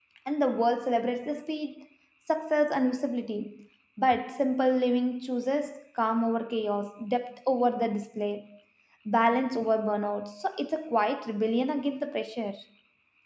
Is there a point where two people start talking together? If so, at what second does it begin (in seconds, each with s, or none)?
none